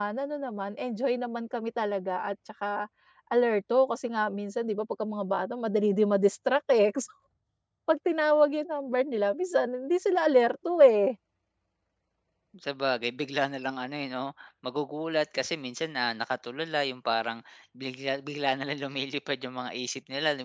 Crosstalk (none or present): none